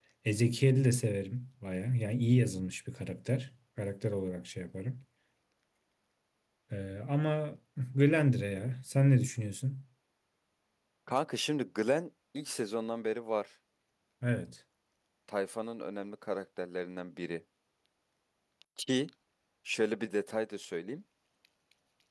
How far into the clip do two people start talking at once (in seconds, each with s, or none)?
none